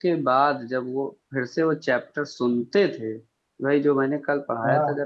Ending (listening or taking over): listening